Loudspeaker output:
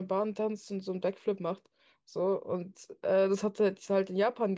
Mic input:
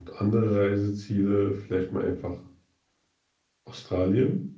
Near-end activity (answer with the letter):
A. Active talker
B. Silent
A